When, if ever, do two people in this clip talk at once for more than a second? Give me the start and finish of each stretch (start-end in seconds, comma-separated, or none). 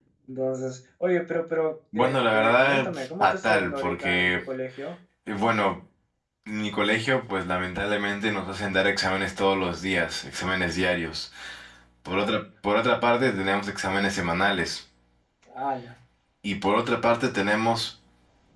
1.9-4.4